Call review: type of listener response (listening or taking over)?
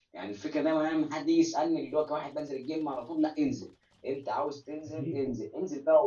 listening